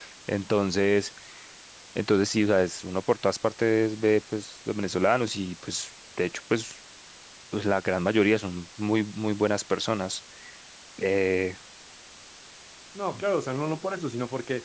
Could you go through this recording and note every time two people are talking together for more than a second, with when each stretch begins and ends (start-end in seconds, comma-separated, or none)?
none